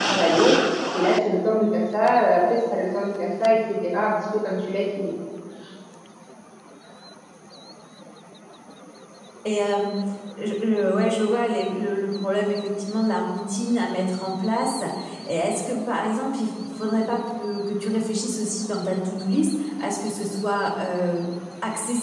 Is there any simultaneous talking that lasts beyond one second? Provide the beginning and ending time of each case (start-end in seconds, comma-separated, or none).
none